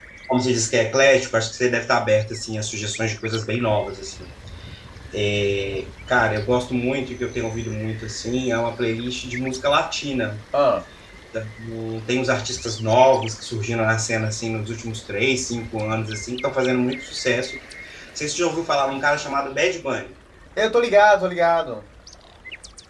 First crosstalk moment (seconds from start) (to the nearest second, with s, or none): none